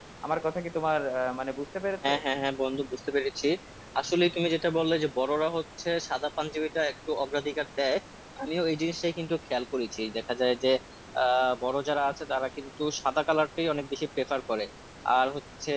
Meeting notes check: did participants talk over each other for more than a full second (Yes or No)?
No